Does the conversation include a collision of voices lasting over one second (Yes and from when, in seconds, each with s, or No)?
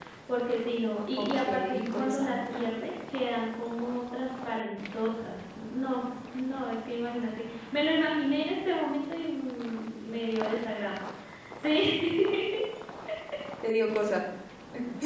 Yes, from 1.2 s